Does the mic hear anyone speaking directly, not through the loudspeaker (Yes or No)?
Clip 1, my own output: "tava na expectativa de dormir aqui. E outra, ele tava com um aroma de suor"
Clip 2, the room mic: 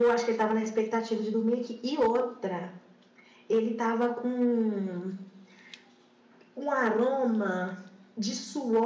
No